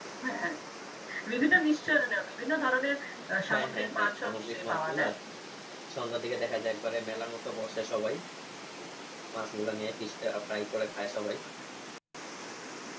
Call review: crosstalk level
present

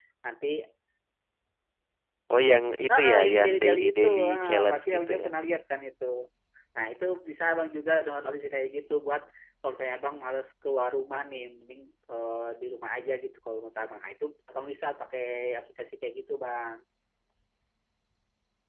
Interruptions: present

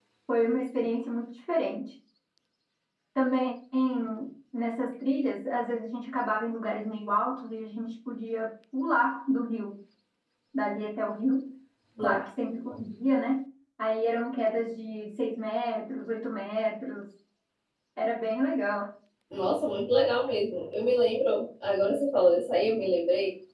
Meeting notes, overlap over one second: none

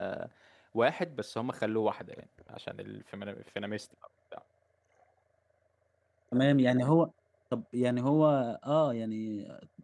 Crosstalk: none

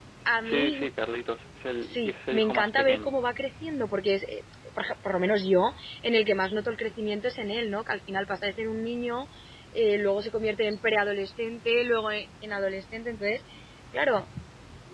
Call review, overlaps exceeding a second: present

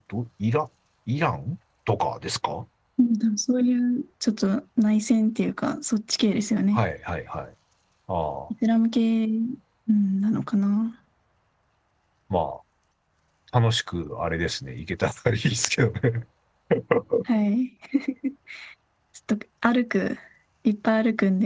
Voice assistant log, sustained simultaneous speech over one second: none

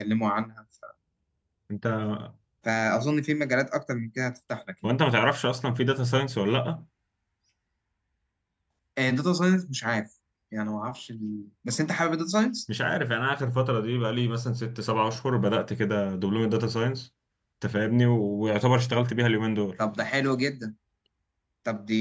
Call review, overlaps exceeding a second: none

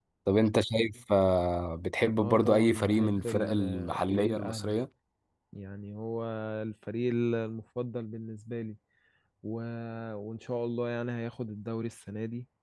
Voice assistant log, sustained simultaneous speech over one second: present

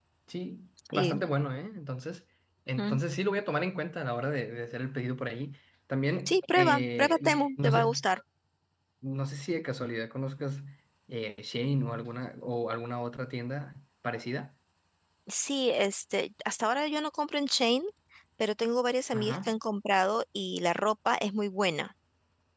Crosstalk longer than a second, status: present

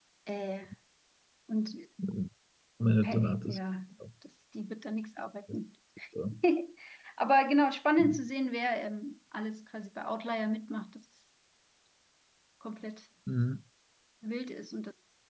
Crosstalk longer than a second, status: none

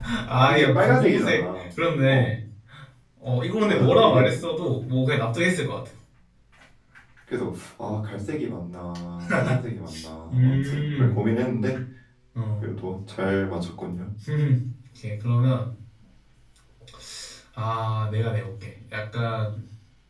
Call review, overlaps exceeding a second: present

